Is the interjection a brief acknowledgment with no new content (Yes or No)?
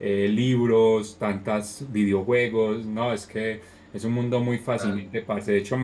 Yes